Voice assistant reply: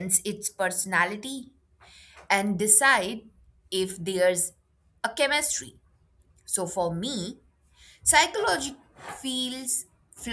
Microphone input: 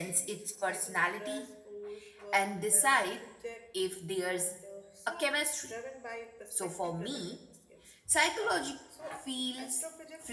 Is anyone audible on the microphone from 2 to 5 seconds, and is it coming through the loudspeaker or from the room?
both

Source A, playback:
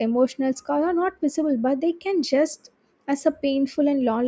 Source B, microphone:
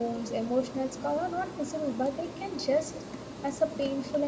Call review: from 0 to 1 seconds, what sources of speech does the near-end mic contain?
echo only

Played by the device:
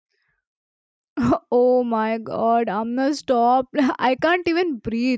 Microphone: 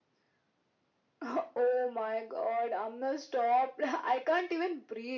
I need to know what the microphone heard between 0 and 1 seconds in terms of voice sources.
neither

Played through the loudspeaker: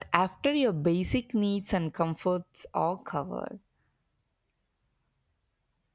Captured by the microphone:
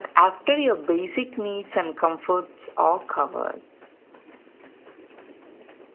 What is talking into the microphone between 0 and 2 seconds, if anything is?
echo only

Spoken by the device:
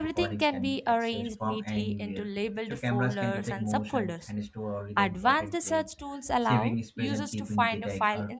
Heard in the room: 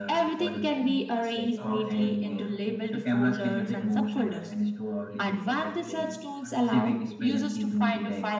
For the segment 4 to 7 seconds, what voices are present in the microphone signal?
both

